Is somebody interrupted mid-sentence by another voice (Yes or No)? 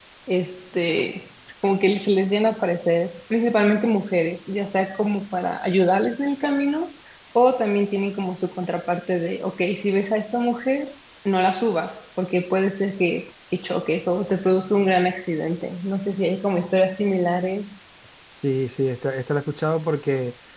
No